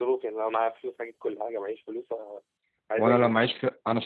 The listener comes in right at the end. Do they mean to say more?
Yes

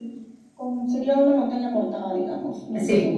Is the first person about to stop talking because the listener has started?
No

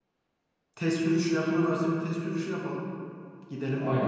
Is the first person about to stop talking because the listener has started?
Yes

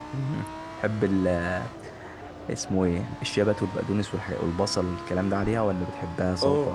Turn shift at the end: No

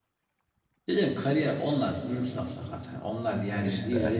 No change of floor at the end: Yes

